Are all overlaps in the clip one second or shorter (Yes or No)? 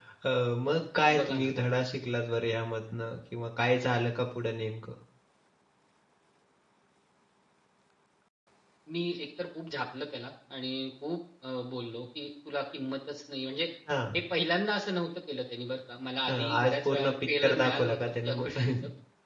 No